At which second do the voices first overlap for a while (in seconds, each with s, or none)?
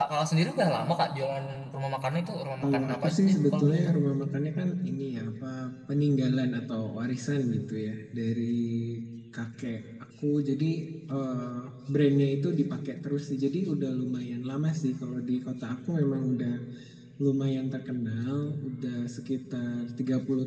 2.6 s